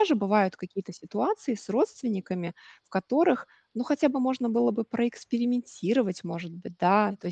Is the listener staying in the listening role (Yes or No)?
Yes